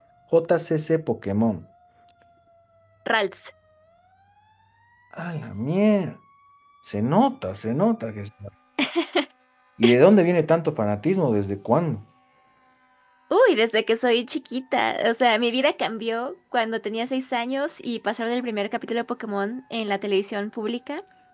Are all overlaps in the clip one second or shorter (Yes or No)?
Yes